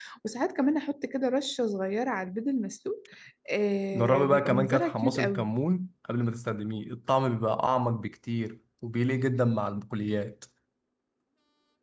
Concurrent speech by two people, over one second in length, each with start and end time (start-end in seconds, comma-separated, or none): 3.9-5.5